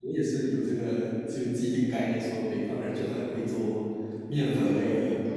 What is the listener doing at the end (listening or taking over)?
taking over